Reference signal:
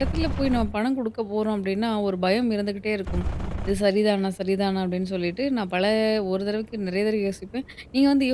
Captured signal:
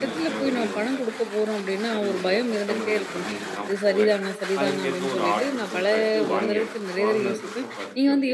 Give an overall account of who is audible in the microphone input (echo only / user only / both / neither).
both